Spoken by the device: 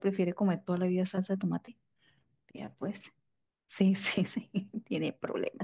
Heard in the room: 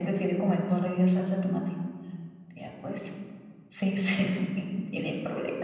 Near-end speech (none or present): none